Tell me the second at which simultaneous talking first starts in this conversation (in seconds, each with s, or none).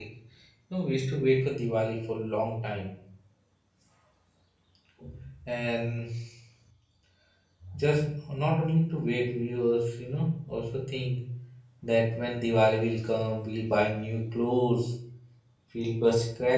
none